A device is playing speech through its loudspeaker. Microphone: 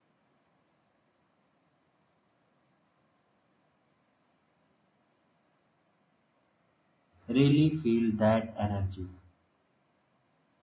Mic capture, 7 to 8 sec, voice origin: user only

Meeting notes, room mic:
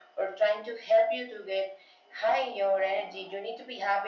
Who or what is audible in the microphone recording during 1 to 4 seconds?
echo only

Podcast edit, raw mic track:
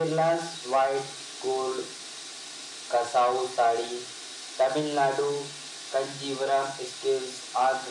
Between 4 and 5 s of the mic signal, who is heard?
echo only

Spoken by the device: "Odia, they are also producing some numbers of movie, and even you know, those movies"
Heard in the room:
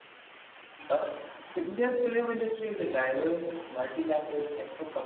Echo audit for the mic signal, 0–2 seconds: user only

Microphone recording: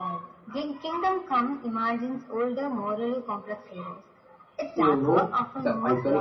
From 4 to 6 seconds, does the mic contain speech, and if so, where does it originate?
both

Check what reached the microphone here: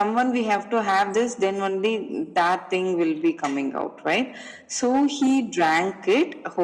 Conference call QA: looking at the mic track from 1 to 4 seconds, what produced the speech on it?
echo only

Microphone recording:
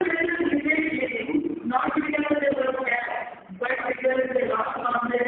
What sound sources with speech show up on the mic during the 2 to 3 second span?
echo only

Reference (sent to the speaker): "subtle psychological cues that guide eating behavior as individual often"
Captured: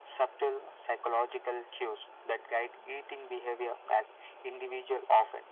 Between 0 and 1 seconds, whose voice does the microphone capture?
echo only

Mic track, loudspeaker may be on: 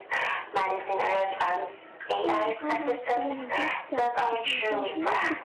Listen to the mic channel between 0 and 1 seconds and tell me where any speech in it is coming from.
echo only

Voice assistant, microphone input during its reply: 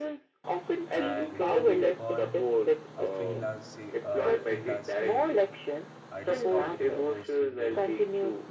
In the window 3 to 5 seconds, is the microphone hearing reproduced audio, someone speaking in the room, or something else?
both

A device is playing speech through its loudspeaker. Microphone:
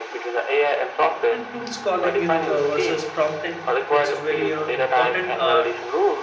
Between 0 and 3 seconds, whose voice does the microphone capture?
both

